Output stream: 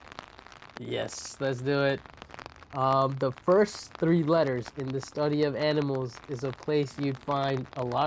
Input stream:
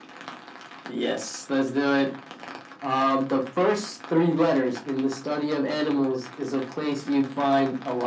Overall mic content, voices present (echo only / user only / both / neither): echo only